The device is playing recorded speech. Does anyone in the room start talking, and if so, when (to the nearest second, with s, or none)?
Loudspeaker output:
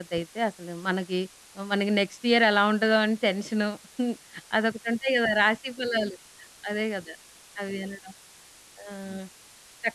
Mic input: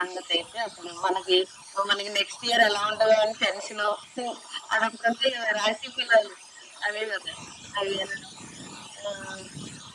none